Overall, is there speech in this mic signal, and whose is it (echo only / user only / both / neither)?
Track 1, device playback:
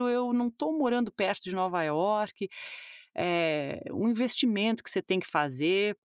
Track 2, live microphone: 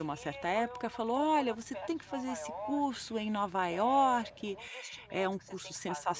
both